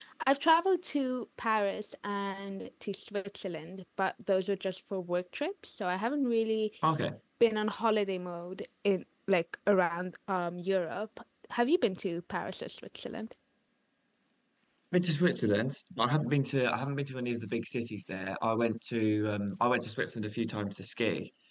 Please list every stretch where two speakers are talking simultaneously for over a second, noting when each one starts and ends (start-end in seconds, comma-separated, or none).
none